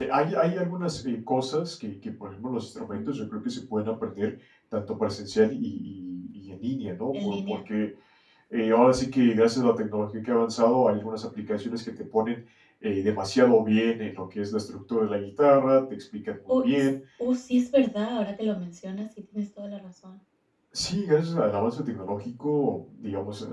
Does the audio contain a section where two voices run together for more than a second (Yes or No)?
No